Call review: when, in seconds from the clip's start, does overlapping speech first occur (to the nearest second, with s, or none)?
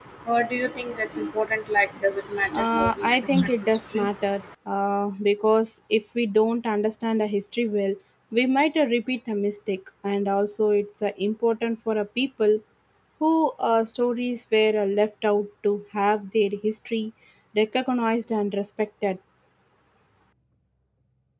3 s